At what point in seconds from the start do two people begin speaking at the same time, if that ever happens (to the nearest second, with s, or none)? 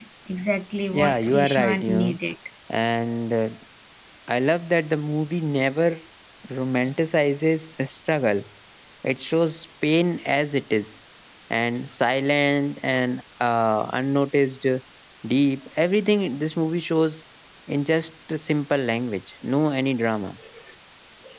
1 s